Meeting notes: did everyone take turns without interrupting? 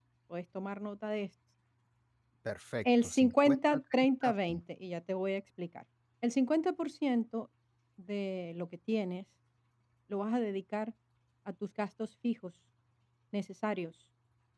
No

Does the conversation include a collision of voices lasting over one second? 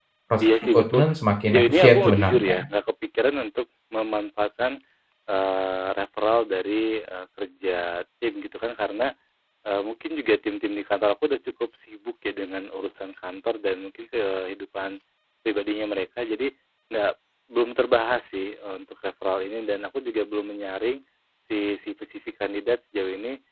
Yes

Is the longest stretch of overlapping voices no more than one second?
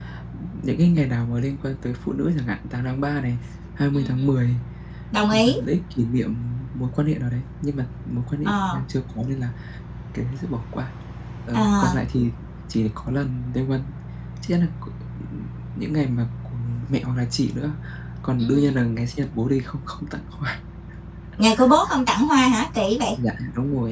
Yes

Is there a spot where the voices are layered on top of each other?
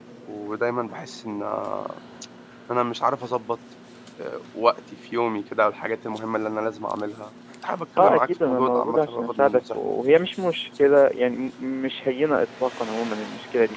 Yes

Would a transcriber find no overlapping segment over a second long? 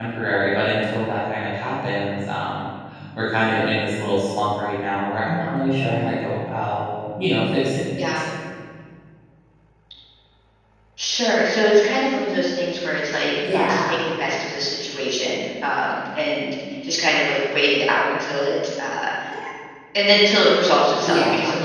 Yes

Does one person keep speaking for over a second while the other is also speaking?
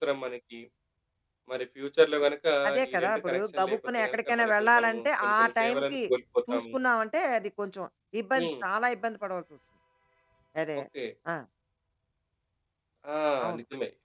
Yes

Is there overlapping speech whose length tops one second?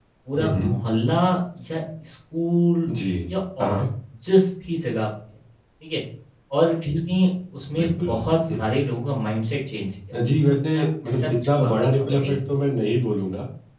Yes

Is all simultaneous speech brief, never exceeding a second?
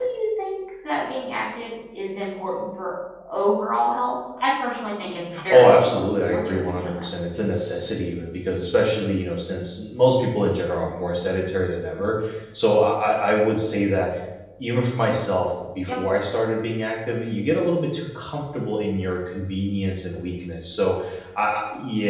No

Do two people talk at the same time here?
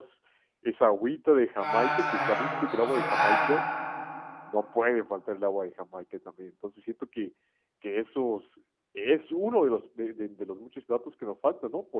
Yes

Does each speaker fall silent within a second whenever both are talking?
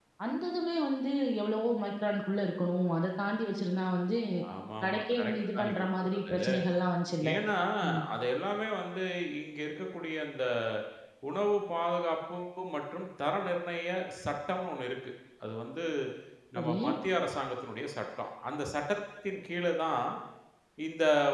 No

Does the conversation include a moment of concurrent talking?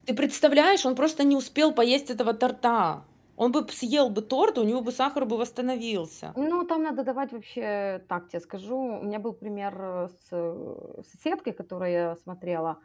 No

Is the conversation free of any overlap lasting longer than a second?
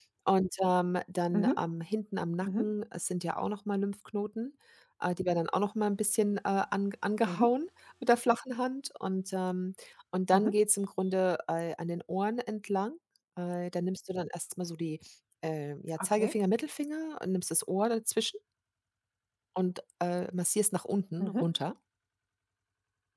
Yes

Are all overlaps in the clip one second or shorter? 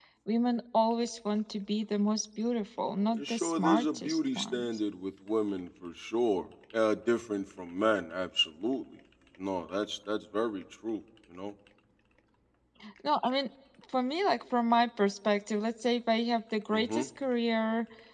No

